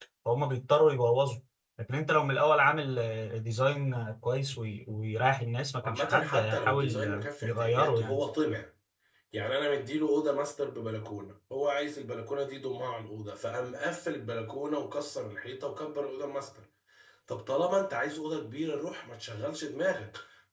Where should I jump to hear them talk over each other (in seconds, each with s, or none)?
5.8 s